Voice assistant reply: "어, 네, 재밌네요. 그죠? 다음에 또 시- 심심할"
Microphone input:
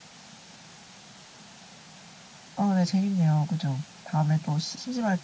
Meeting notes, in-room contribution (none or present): none